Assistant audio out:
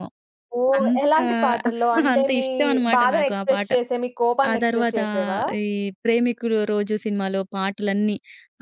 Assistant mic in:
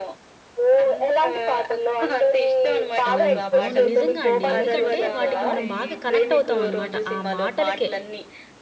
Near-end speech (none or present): present